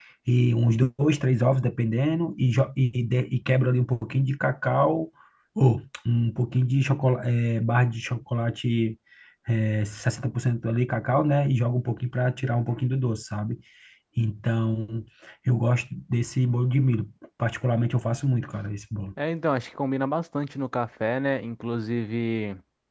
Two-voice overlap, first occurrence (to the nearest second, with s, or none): none